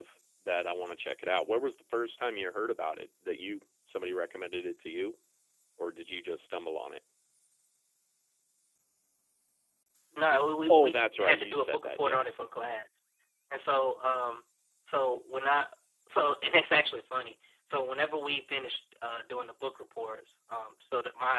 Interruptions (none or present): present